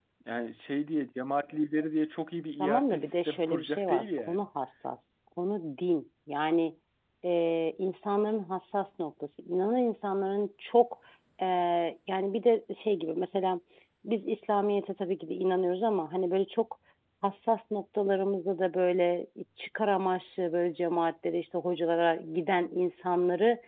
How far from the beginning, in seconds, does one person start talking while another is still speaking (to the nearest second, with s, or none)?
3 s